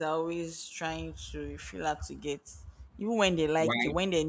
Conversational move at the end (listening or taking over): listening